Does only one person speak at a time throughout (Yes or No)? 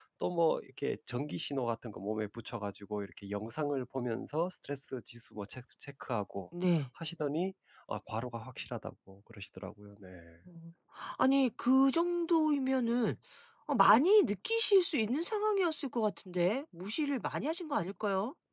Yes